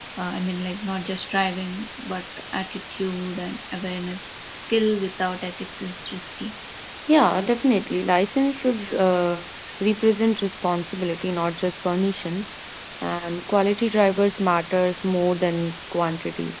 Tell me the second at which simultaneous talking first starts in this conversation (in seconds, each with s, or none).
none